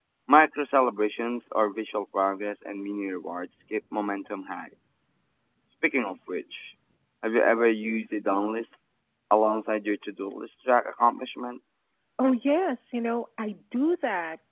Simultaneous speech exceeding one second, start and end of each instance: none

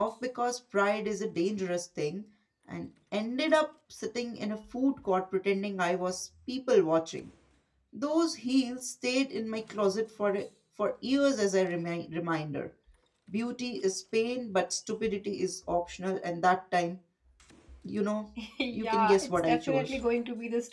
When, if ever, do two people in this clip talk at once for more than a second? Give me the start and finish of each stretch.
18.7-20.0

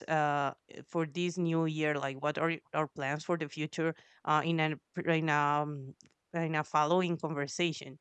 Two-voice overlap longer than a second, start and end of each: none

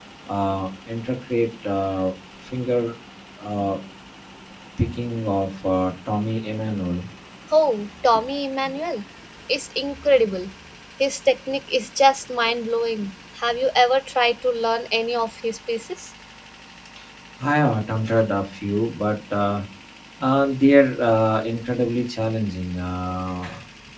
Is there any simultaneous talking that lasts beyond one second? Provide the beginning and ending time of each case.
none

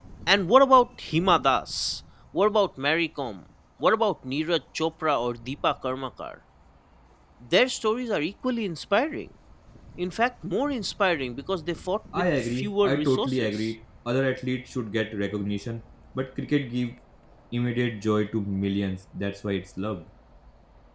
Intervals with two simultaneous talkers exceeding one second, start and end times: 12.1-13.7

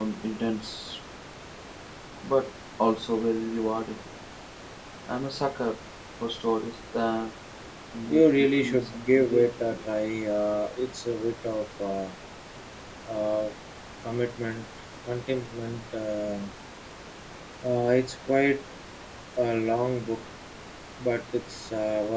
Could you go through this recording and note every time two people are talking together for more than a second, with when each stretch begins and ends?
8.1-9.8

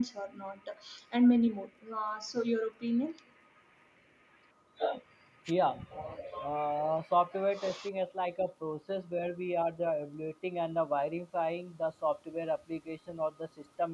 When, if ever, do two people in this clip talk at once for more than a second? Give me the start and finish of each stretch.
none

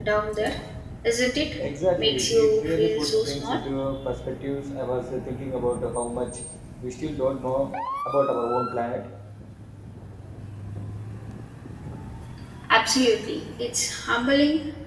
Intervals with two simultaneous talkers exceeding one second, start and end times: 2.0-3.6

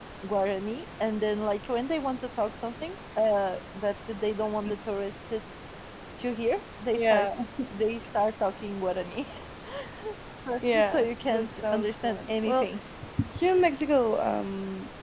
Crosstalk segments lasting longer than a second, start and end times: 10.7-12.7

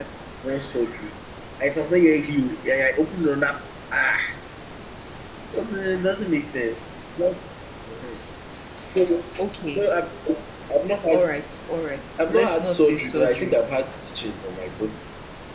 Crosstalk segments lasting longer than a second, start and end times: 12.3-13.6

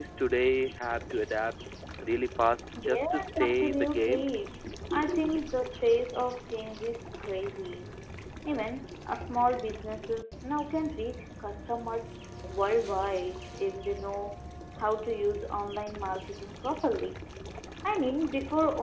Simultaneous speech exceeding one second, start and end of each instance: 2.8-4.3

